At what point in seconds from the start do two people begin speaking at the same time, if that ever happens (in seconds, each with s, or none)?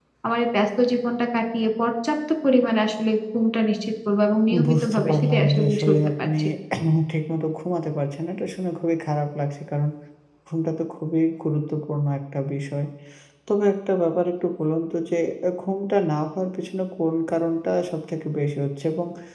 4.5 s